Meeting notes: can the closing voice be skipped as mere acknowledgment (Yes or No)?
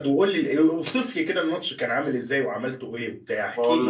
No